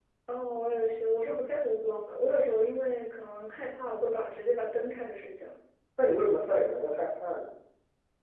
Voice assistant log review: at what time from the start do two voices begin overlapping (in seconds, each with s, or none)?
none